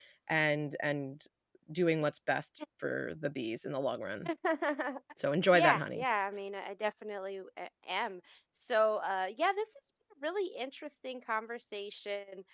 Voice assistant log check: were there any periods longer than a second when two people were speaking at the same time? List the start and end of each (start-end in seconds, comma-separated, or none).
none